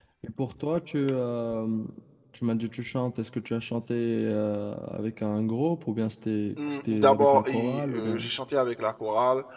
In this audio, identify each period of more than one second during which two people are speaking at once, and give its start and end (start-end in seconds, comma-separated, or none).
6.7-8.3